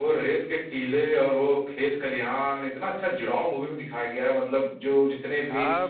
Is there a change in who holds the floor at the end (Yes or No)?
Yes